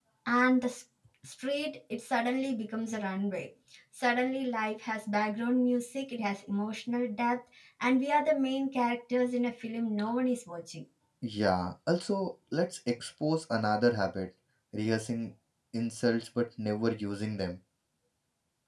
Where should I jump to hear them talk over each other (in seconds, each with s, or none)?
none